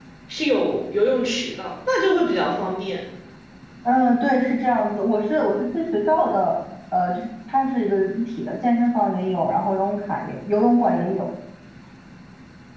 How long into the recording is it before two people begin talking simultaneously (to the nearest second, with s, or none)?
none